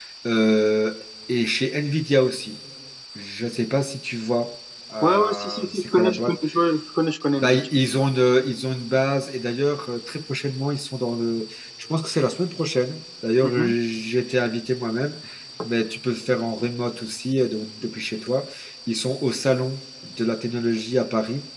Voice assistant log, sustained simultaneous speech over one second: present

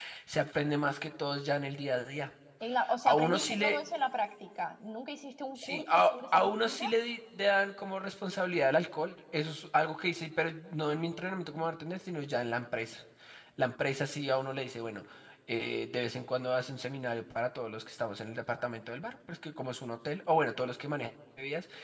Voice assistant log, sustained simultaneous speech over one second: present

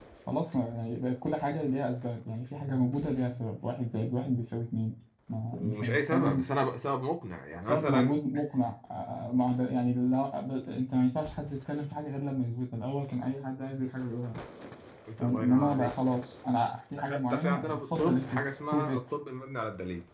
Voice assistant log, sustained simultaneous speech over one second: present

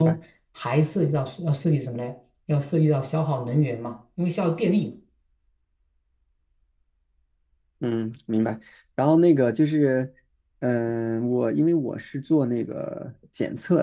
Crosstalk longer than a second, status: none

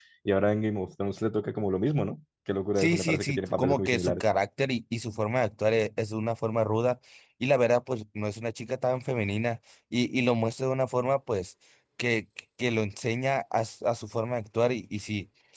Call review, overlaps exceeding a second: present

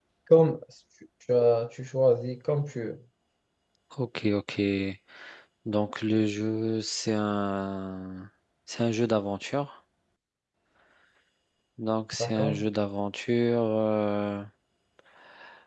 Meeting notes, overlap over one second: none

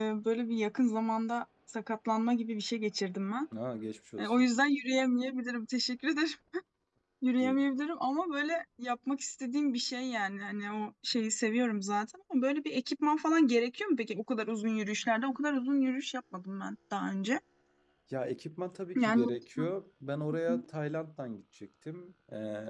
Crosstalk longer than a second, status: none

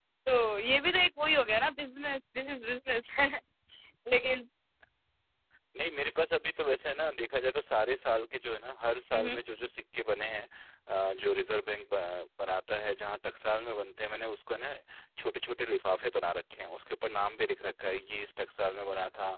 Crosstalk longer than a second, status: none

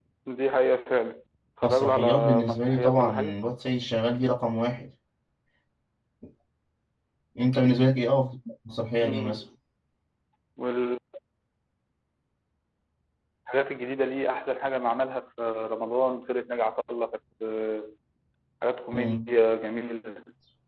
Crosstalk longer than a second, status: present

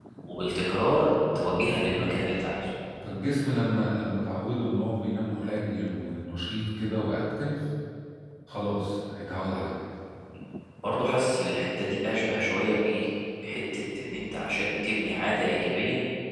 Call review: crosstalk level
none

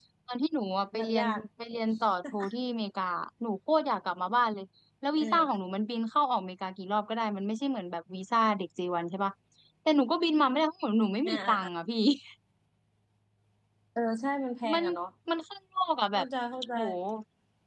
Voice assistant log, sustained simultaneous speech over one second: none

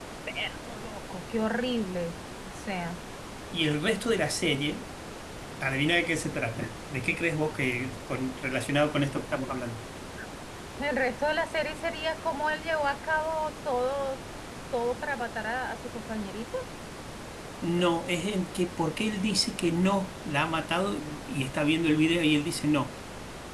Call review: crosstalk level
none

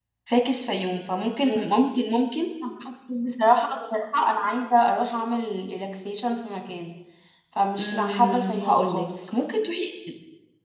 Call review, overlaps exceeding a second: present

